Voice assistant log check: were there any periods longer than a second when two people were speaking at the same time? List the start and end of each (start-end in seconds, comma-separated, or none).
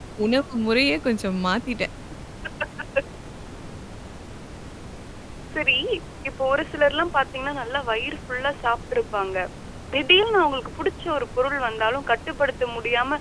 none